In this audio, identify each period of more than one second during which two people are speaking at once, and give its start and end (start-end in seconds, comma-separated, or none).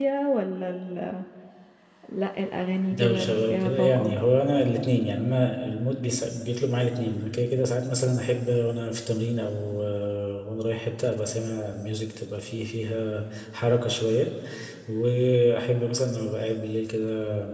2.9-4.2